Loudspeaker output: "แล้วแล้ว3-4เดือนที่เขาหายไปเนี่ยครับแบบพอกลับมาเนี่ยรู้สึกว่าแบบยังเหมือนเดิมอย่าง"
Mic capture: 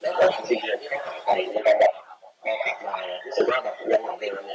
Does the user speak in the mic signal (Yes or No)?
No